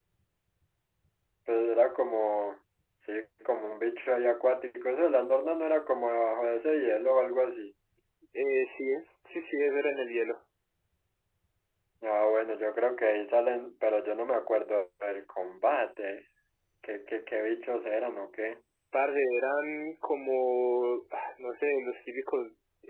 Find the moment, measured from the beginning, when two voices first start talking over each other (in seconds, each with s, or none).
none